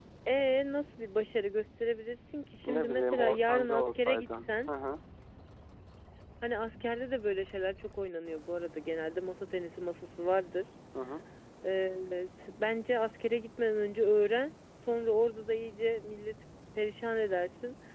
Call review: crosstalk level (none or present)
present